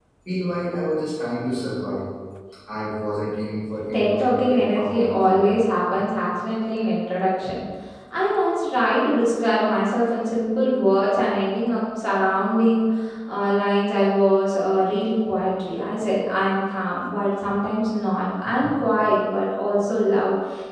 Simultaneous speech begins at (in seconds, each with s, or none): 3.7 s